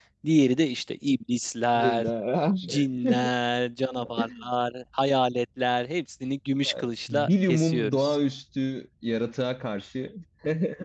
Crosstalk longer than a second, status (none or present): present